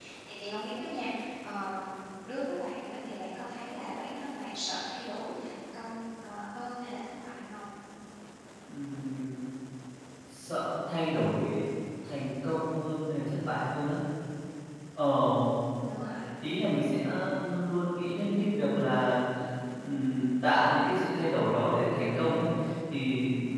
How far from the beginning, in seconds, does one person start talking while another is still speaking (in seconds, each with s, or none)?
none